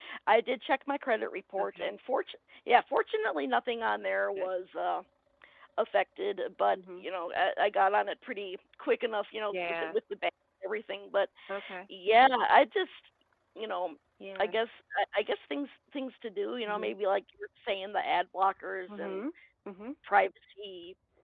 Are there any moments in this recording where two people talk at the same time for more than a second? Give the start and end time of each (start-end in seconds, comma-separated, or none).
none